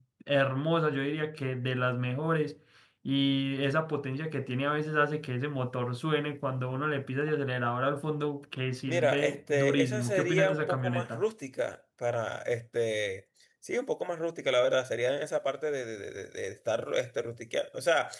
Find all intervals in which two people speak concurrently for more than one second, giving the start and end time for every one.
8.9-11.2

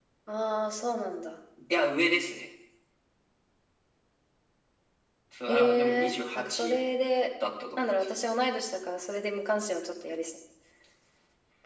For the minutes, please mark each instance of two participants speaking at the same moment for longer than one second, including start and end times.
5.5-6.8

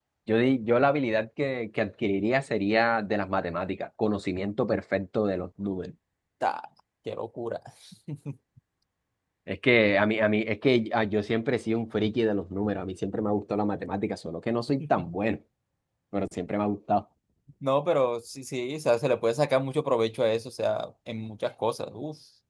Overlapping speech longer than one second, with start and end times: none

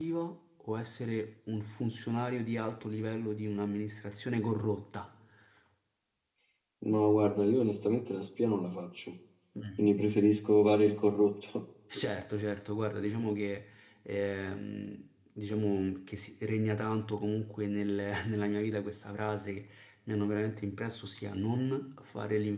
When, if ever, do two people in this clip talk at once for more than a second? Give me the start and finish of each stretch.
none

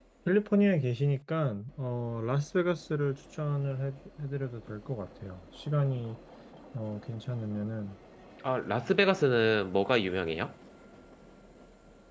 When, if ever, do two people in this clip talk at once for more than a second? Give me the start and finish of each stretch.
none

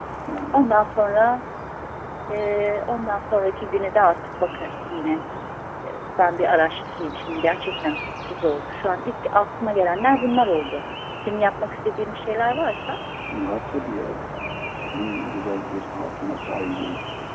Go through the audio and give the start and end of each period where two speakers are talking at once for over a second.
none

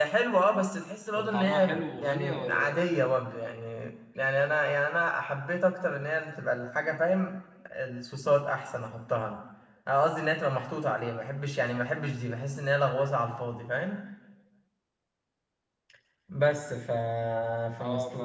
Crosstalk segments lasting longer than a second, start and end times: 1.2-2.7

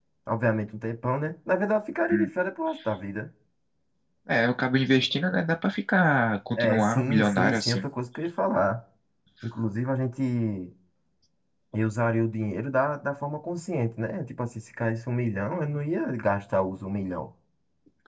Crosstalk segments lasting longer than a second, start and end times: 6.6-7.8

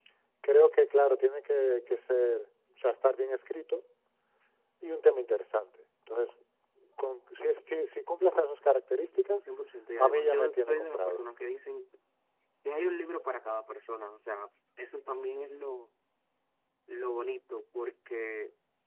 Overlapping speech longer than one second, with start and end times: 10.0-11.3

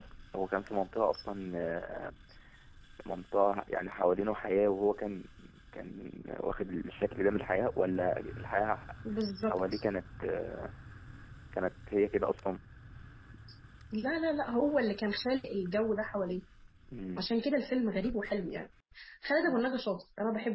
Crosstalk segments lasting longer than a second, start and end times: none

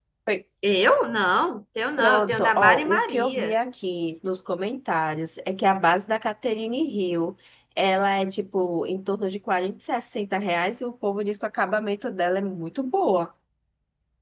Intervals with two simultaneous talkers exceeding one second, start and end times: 2.0-3.5

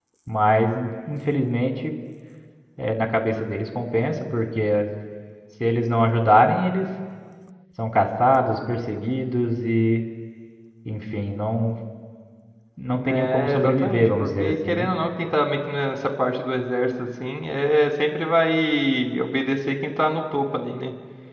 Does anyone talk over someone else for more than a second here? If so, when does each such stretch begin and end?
12.9-14.9

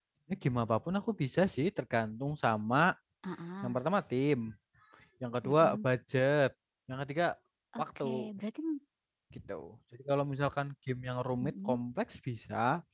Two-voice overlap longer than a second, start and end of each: none

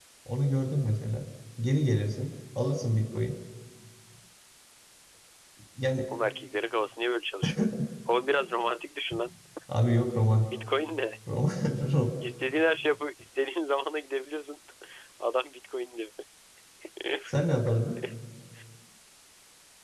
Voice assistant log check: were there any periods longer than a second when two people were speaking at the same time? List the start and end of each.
none

